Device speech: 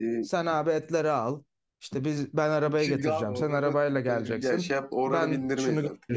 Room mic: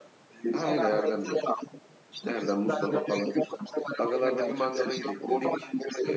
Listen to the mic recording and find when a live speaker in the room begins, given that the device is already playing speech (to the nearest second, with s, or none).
1 s